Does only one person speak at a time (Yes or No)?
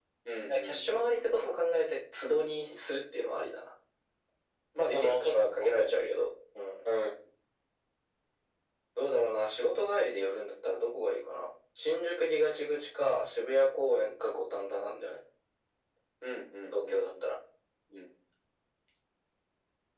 No